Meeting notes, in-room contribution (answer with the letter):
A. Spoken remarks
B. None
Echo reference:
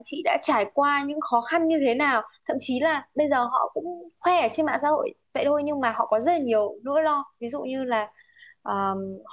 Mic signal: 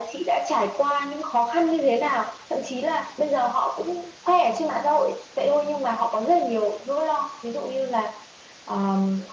B